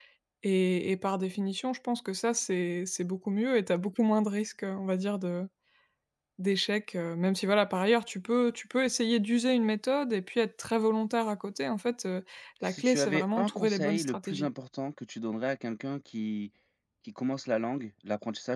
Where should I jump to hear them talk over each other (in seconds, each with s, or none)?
12.7 s